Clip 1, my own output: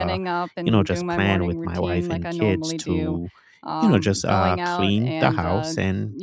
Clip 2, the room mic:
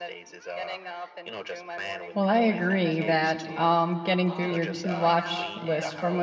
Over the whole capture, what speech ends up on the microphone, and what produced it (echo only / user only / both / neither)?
both